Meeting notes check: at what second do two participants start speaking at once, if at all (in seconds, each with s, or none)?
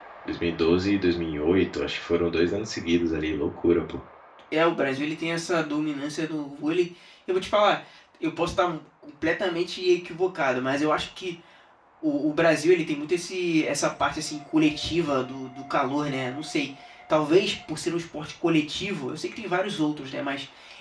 none